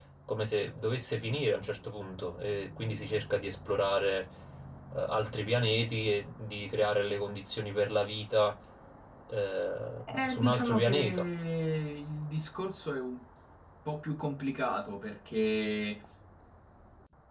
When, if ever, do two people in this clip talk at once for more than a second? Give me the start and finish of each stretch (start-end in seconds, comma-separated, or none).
10.1-11.3